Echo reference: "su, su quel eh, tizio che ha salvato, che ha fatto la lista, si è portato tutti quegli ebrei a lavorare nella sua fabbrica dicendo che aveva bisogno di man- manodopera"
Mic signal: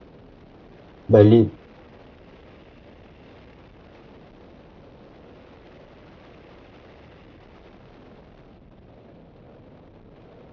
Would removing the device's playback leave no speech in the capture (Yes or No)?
No